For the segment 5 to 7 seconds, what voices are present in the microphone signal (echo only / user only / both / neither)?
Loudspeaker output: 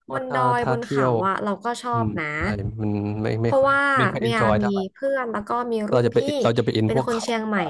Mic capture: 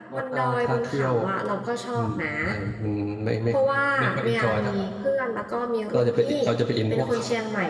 echo only